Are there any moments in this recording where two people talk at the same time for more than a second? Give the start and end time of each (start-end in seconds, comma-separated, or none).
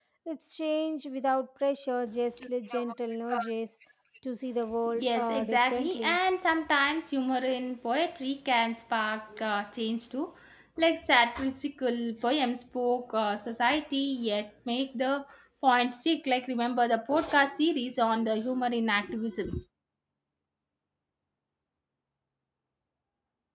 5.0-6.2